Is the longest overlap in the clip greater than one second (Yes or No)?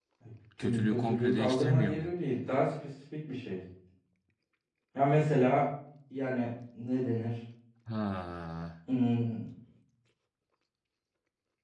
Yes